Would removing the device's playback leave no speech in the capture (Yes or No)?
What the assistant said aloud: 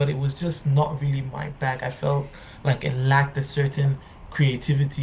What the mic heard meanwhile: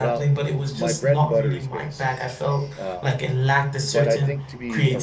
No